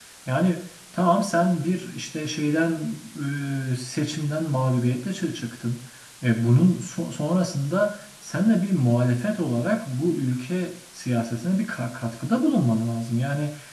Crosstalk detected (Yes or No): No